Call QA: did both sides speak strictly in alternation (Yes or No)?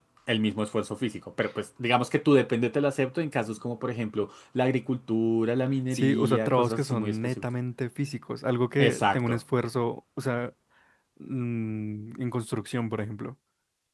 No